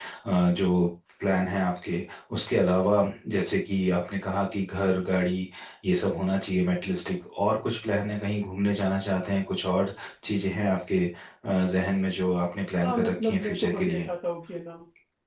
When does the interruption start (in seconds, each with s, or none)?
12.8 s